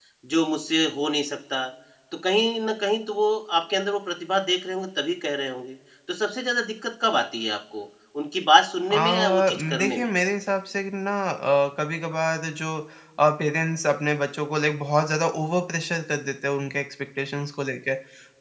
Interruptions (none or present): present